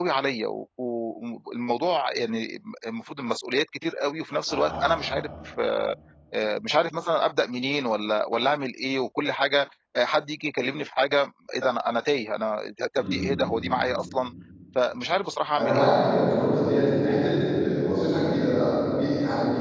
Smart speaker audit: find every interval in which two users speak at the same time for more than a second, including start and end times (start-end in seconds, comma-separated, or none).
none